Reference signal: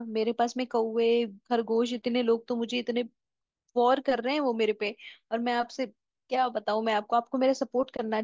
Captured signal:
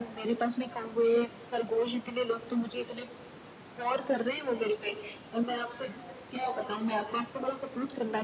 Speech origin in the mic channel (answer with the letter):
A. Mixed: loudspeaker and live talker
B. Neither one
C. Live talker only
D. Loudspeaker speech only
D